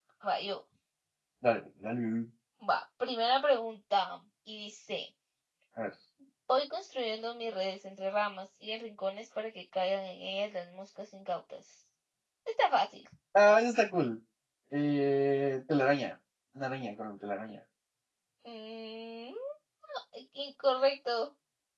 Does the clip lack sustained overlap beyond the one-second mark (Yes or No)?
Yes